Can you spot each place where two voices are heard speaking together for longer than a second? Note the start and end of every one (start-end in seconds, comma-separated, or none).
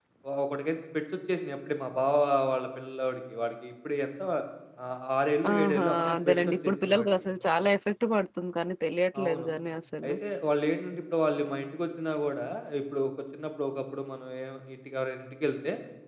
5.5-7.1